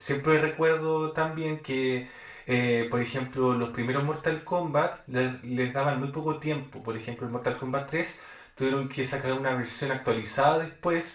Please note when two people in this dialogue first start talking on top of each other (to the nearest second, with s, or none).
none